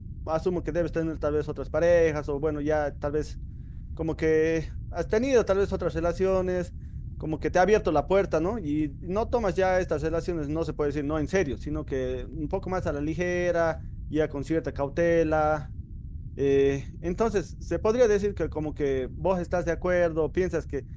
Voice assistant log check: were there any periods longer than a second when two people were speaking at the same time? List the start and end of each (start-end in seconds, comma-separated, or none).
none